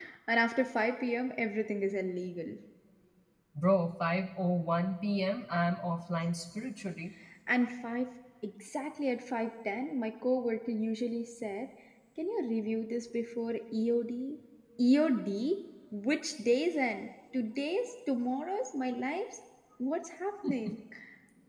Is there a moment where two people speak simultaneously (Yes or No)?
No